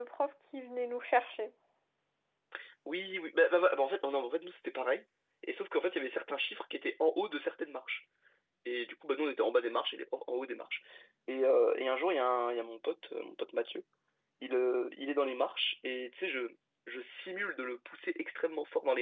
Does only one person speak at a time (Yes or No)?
Yes